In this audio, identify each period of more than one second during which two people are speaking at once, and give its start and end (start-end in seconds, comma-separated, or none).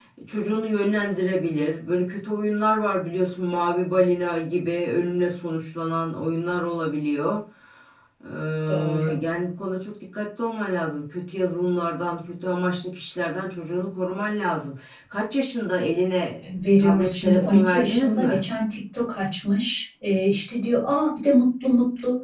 16.8-18.4